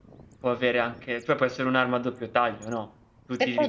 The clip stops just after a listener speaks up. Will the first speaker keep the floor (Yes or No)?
Yes